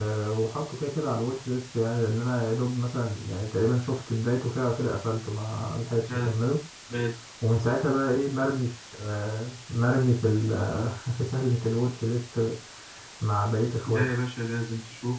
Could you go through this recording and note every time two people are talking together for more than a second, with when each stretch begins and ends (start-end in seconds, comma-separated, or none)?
none